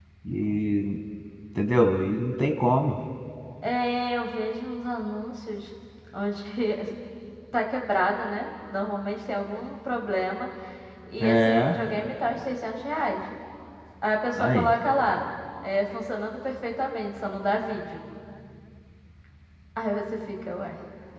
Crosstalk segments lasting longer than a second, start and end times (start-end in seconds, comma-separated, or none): none